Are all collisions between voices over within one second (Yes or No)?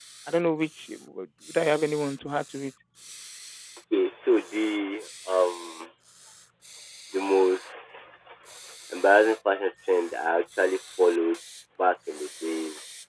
Yes